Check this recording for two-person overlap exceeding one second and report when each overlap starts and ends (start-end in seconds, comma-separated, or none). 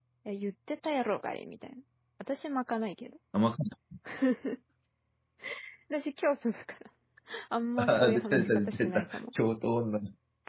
7.8-9.2